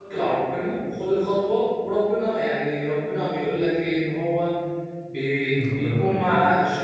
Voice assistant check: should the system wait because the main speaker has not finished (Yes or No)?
Yes